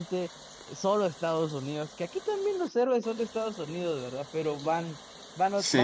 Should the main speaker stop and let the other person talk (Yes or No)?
No